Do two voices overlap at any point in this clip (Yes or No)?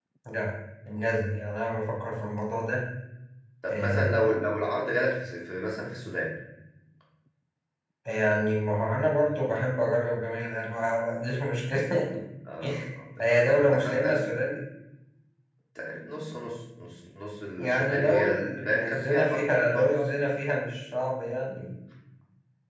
Yes